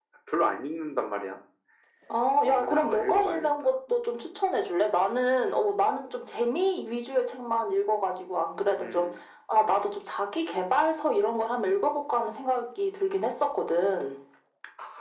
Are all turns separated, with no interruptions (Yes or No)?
No